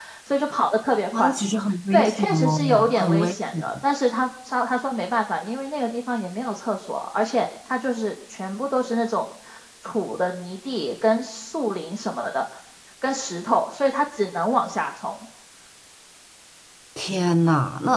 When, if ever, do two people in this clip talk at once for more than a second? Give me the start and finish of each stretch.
1.9-3.6

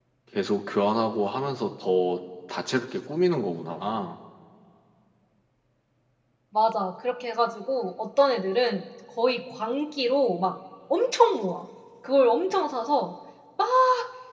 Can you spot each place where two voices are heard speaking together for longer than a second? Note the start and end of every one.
none

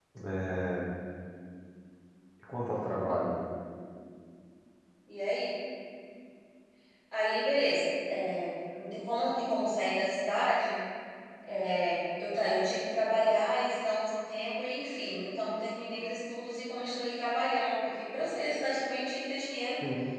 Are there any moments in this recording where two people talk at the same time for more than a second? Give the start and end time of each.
none

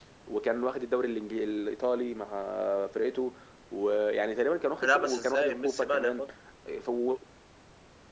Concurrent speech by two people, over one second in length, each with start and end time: 4.8-6.2

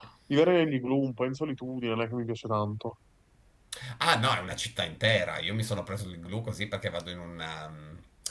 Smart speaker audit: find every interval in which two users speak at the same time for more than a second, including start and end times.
none

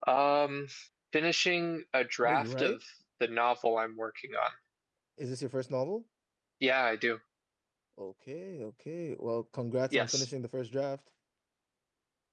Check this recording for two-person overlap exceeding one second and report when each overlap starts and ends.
none

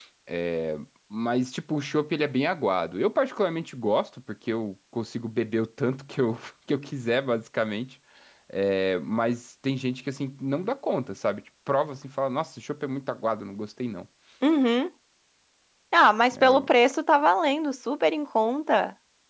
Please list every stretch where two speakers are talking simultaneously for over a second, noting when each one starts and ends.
none

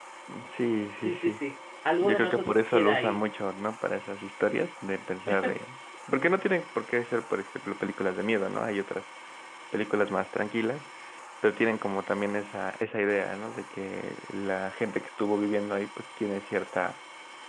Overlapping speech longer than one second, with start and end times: 2.0-3.2

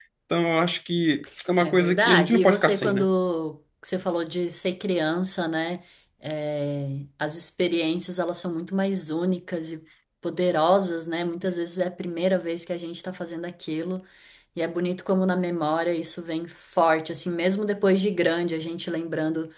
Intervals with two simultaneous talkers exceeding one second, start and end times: 1.6-3.1

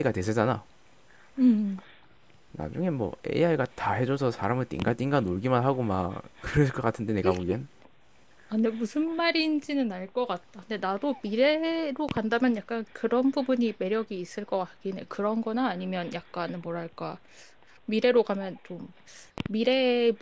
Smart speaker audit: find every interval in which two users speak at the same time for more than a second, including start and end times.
none

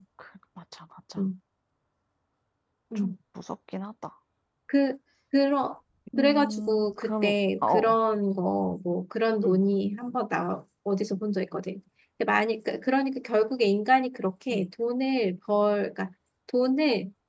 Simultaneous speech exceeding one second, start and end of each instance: 6.2-8.0

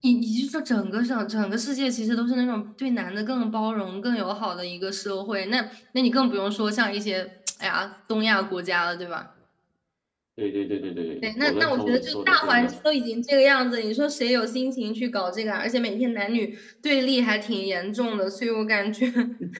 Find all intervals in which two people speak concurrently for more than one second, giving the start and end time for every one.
11.2-12.7

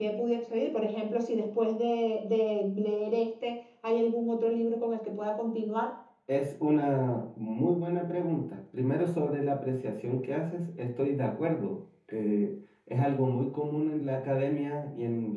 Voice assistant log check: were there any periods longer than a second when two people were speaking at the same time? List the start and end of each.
none

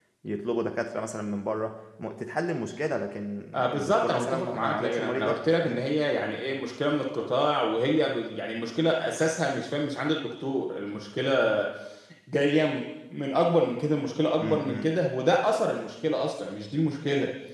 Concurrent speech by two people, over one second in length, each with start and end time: 3.8-5.8

